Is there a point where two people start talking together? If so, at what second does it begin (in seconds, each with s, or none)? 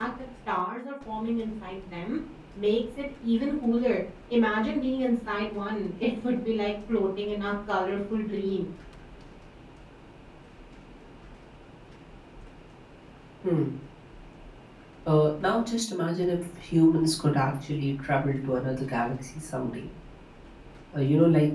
none